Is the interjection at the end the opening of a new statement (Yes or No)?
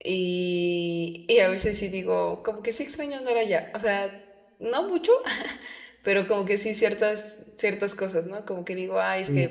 No